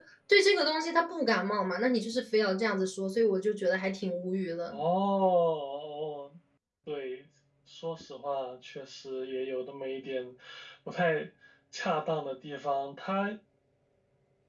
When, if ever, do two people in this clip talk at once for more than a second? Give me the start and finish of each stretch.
none

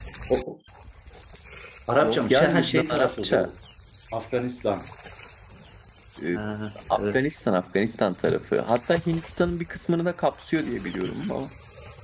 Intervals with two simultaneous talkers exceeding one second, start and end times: 2.0-3.5

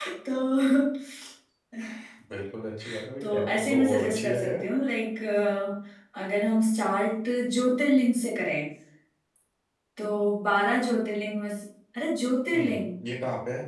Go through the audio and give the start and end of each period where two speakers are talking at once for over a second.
3.2-4.6

